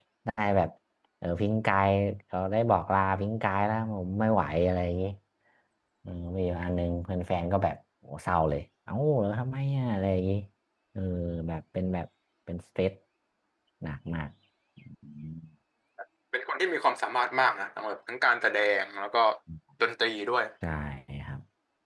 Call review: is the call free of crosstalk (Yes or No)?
Yes